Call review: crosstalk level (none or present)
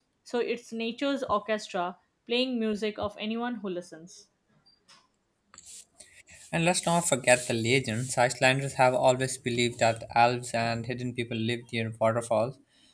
none